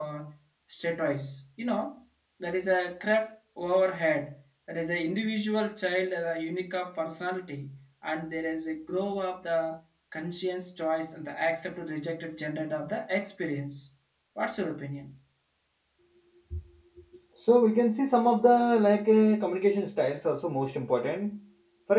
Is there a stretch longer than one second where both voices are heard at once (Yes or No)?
No